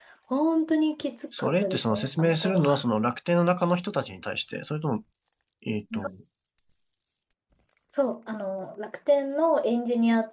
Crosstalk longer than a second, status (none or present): present